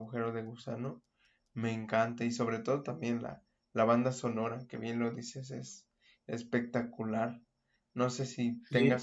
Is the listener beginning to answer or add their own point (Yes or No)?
No